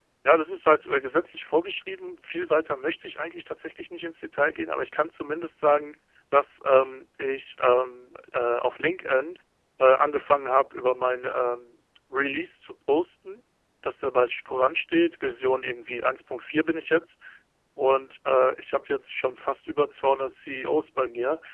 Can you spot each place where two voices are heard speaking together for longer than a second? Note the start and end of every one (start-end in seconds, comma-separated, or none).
none